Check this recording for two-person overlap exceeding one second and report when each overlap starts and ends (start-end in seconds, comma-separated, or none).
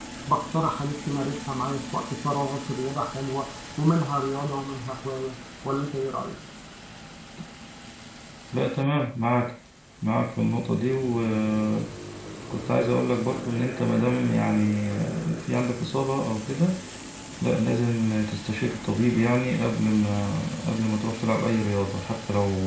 none